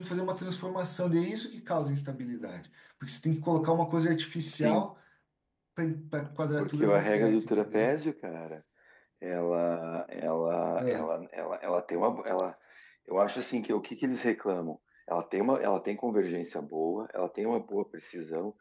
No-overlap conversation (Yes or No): No